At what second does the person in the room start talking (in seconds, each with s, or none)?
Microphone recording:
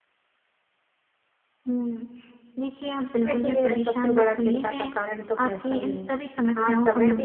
3.2 s